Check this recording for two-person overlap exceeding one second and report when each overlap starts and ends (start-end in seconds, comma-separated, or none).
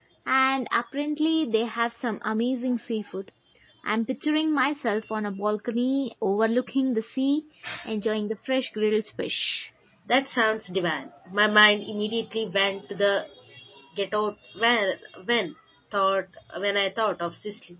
none